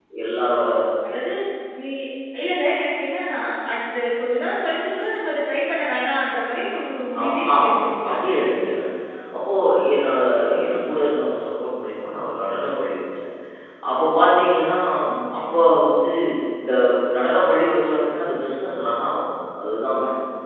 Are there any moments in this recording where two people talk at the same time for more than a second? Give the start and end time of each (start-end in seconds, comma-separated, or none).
7.2-8.7